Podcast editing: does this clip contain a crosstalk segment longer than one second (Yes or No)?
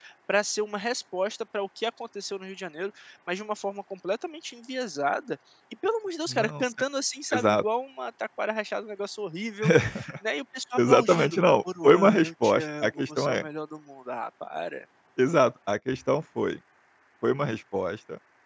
Yes